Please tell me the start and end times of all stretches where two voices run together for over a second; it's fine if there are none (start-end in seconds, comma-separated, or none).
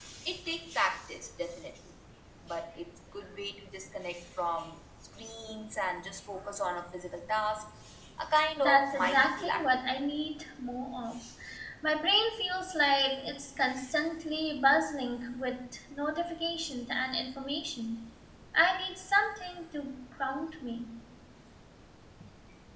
8.6-9.9